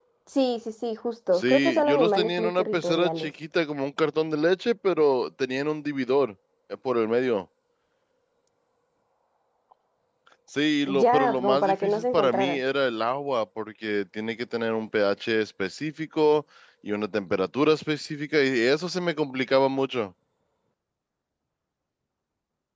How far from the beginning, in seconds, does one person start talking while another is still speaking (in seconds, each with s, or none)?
1.3 s